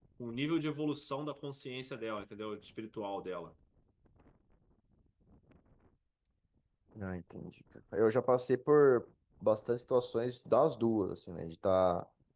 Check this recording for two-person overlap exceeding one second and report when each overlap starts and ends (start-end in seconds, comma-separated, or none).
none